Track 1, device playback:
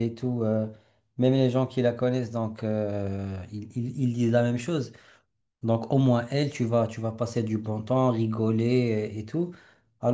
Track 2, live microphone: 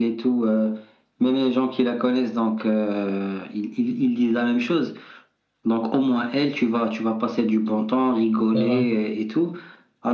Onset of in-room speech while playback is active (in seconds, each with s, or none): 8.5 s